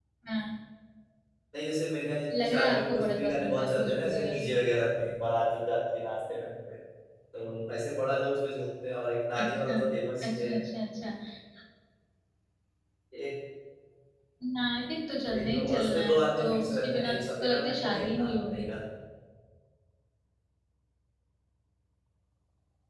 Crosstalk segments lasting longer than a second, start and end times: 2.3-4.5, 15.3-18.7

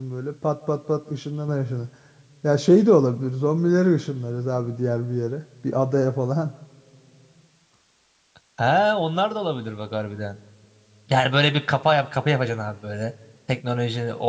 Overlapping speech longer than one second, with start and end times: none

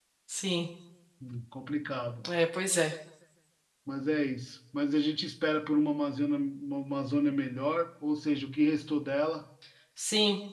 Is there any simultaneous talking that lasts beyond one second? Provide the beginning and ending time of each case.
none

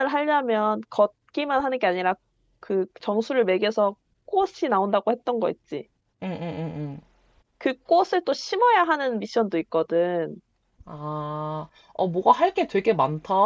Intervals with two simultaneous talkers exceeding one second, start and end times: none

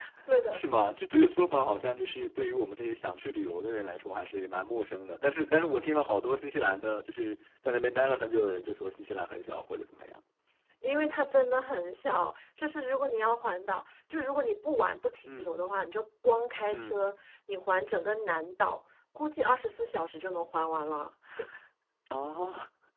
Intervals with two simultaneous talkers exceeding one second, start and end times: none

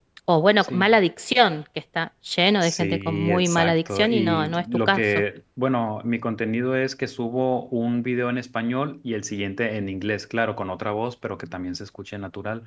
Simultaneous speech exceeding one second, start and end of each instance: 2.6-5.0

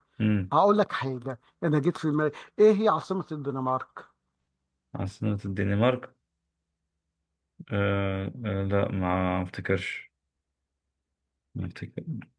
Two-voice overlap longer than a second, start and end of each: none

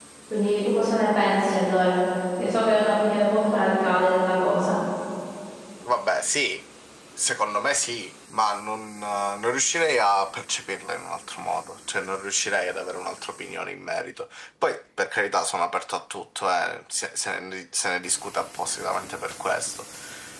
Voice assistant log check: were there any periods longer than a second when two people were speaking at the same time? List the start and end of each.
none

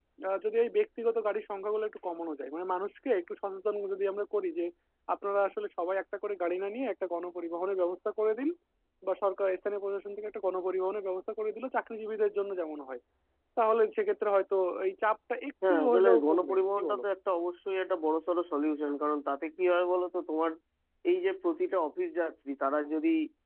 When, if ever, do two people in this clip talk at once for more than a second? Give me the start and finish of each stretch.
15.7-17.0

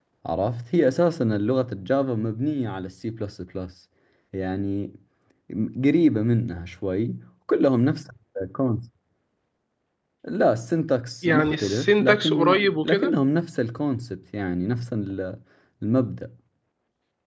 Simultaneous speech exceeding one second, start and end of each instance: 11.2-13.1

